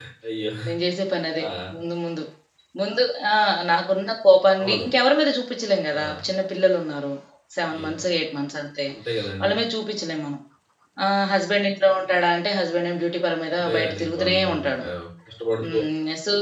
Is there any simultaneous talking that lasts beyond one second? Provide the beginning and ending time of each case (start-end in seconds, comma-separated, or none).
13.5-14.8